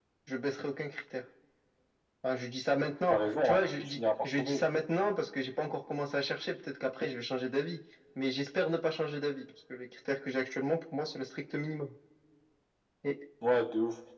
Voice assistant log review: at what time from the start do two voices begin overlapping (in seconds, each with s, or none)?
3.1 s